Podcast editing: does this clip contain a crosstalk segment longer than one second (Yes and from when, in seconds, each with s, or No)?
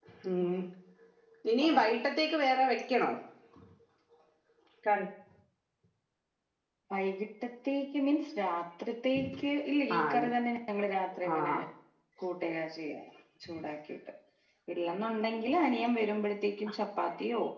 No